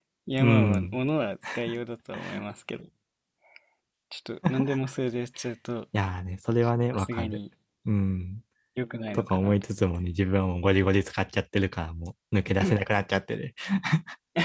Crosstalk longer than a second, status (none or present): none